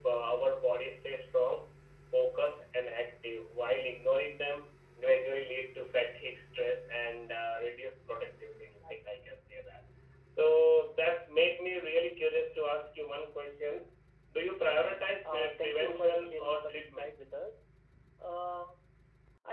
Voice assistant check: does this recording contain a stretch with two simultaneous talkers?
Yes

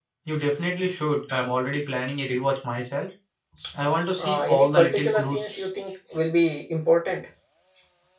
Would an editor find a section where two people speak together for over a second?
Yes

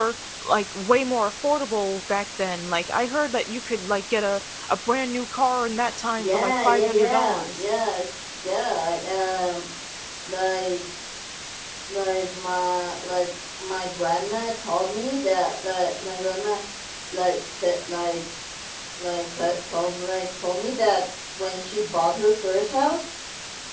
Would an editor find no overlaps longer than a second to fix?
No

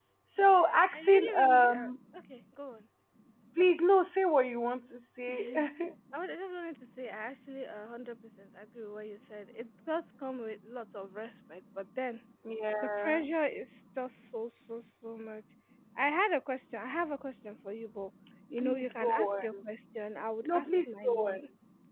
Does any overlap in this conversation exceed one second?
Yes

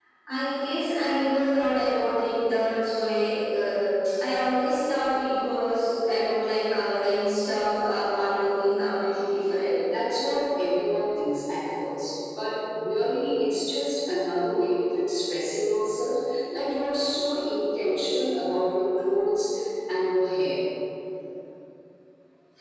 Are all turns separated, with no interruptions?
Yes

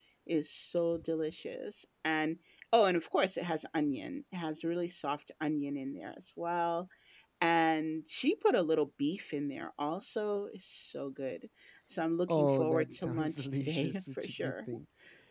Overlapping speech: Yes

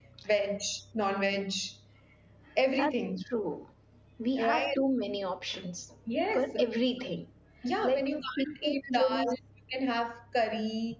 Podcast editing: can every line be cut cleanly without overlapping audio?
No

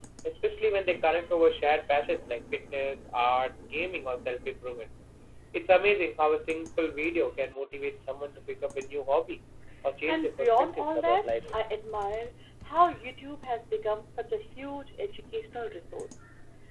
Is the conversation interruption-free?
No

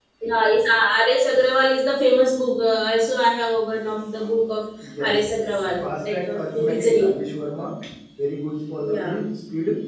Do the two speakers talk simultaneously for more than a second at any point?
Yes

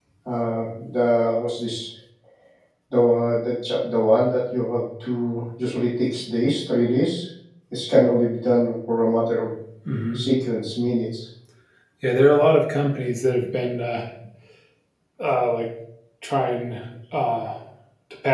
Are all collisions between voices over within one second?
Yes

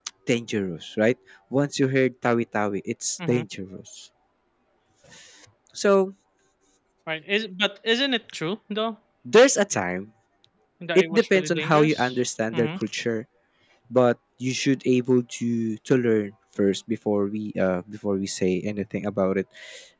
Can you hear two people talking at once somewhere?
Yes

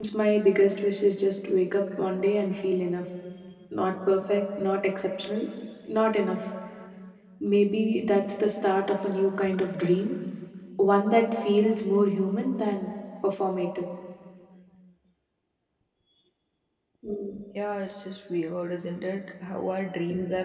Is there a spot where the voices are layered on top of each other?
No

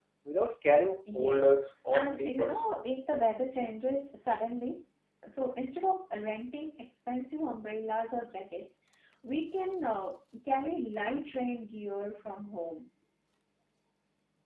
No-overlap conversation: No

